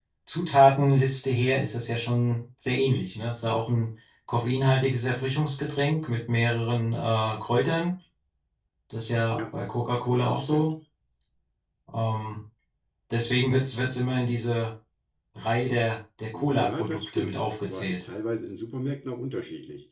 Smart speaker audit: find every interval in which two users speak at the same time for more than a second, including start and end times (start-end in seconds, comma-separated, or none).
16.3-18.0